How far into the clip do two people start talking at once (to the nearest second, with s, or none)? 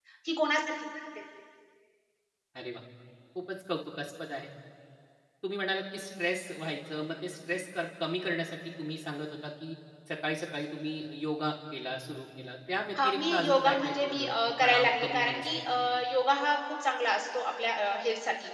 13 s